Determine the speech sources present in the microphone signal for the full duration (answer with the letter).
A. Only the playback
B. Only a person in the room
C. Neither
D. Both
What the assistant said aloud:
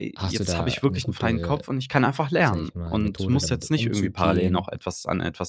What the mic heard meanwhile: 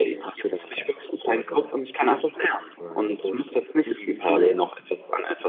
A